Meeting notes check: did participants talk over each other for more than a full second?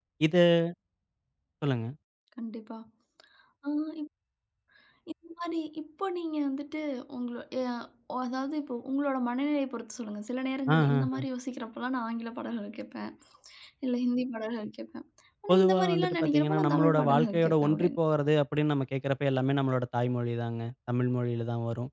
Yes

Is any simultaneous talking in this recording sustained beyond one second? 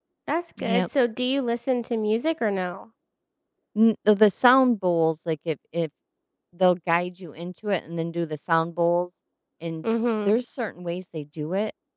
No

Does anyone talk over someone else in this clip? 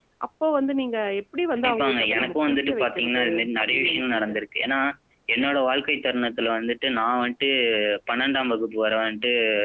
Yes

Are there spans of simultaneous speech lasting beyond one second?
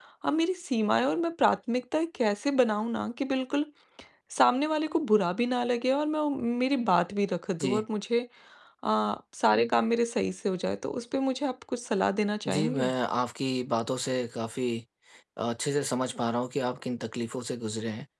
No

